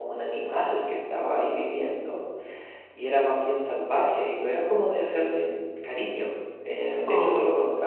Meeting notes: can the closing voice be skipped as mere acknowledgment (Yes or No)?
Yes